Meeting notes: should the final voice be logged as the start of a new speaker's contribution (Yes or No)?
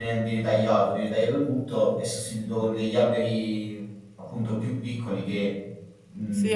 Yes